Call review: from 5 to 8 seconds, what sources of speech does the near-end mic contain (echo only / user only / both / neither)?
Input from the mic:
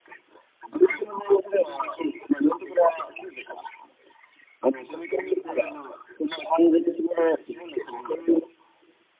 both